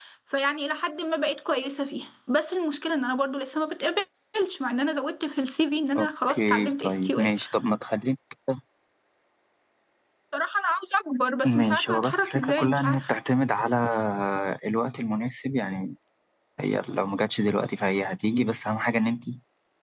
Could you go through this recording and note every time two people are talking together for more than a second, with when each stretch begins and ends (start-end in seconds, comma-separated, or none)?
6.0-7.3, 11.4-13.1